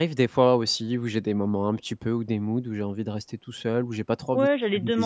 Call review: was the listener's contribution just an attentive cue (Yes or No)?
No